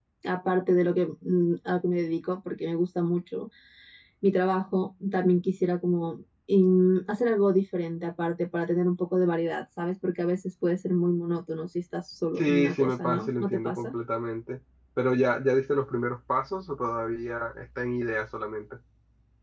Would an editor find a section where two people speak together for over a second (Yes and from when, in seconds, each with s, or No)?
Yes, from 12.4 s